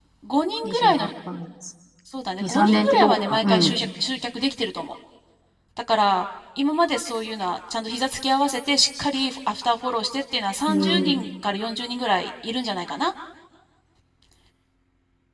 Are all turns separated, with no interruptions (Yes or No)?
No